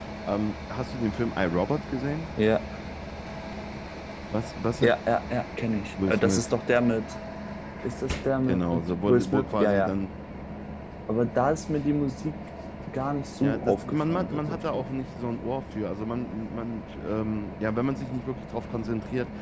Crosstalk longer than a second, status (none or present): present